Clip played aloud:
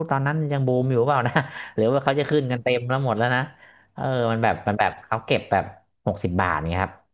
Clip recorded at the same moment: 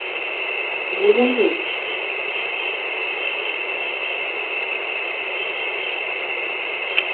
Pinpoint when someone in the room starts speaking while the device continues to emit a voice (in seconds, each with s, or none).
0.9 s